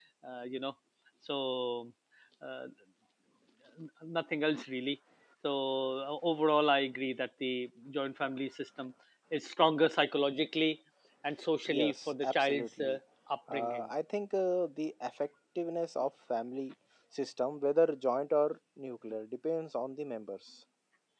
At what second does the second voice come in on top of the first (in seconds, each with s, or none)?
11.7 s